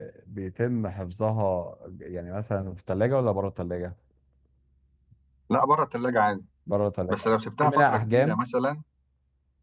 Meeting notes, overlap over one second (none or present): present